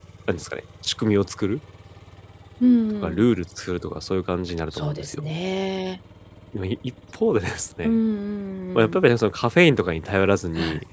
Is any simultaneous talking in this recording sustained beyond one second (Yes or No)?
No